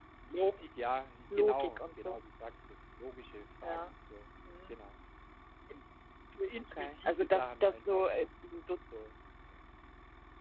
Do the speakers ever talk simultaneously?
Yes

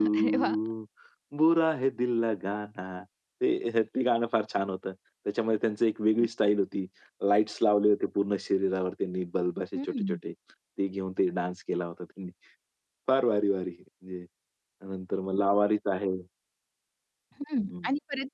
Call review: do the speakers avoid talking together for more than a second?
Yes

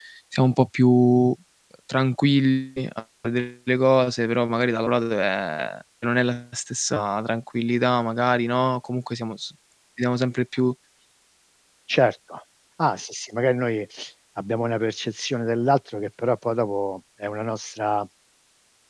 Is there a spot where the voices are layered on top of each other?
No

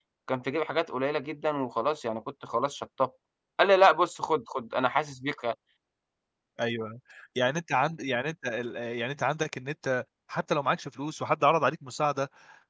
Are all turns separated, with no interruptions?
Yes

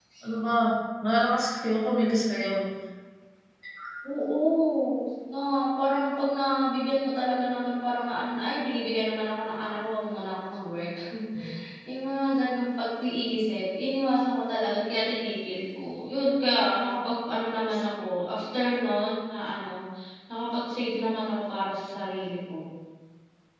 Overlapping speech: No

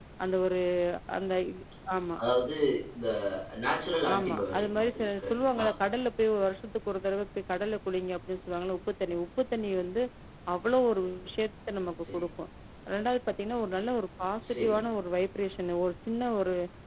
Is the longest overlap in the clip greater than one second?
Yes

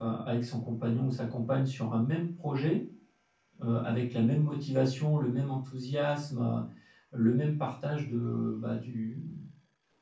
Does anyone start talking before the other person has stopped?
No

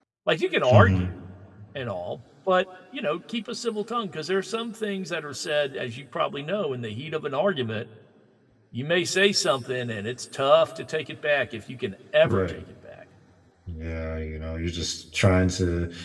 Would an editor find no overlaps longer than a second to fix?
Yes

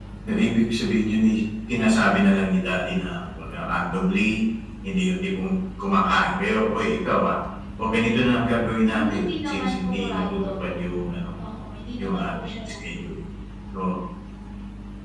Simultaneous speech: Yes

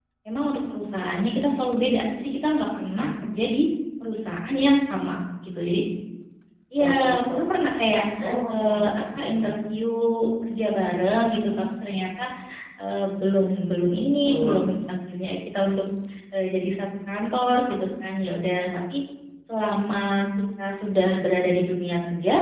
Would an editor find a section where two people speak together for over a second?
No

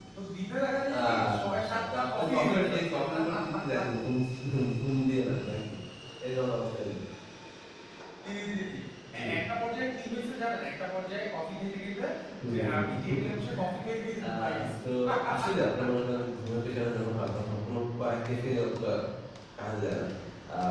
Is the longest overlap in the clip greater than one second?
Yes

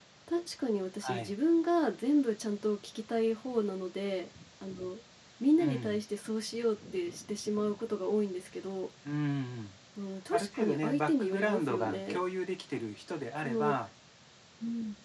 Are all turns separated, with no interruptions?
No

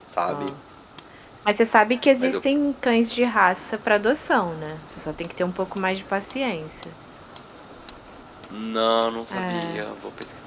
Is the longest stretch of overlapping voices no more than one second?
Yes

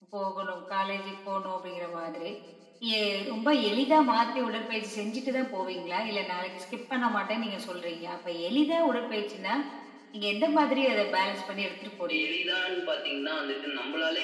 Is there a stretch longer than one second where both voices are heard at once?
No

